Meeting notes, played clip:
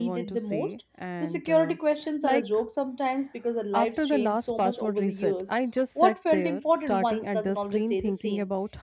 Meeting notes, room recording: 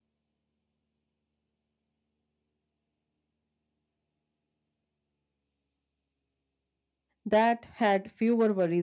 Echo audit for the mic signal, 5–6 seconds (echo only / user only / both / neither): neither